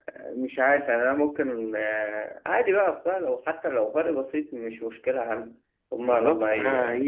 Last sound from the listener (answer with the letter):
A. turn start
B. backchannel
A